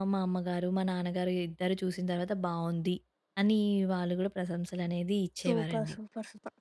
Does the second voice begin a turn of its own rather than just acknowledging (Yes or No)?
Yes